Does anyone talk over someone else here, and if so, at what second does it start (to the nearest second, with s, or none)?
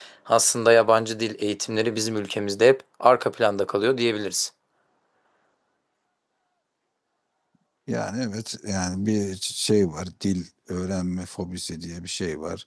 none